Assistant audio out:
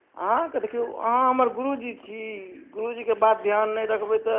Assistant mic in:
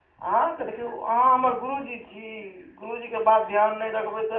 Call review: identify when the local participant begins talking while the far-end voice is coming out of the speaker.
none

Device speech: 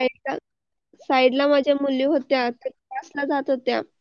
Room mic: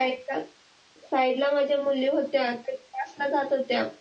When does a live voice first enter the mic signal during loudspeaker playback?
none

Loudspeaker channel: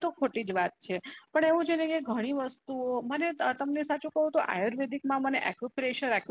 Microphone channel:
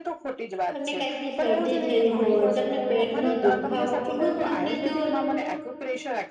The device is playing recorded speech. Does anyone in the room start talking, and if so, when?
1 s

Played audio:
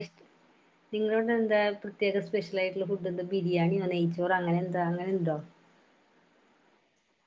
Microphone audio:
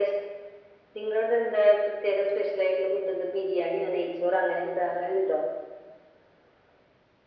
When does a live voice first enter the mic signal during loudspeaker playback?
none

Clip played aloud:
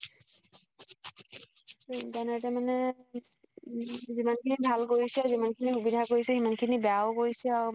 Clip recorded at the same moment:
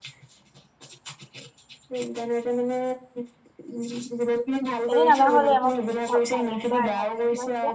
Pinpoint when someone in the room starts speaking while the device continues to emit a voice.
5 s

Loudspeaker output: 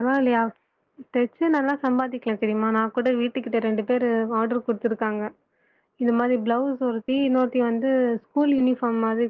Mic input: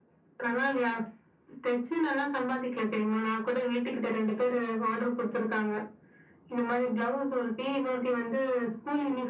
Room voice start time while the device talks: none

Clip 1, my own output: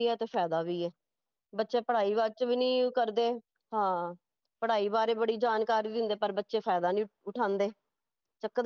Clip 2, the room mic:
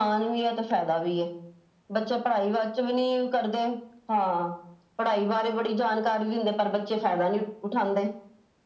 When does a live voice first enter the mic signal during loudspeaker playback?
none

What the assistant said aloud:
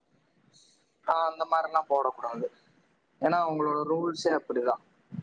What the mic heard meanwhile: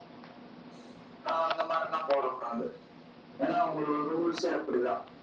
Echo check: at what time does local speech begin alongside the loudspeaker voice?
none

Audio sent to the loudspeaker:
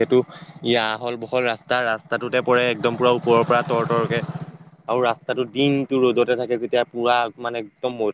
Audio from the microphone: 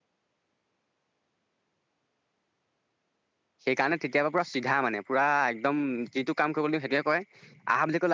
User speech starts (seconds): 4 s

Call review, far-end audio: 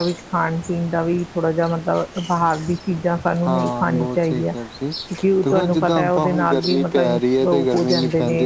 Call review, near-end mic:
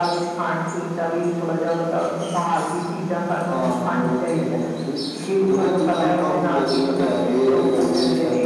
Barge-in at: none

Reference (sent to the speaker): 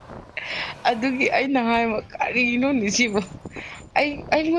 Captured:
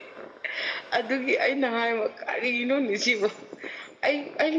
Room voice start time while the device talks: none

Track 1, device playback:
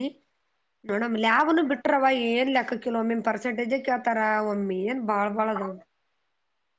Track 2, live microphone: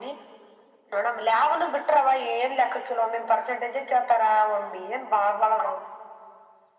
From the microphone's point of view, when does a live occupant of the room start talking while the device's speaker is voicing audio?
none

